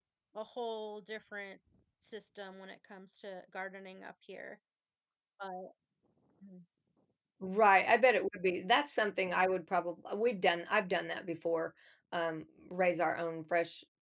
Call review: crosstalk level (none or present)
none